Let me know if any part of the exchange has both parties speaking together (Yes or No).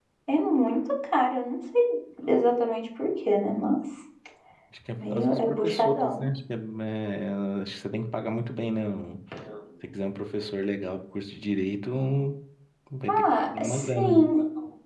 Yes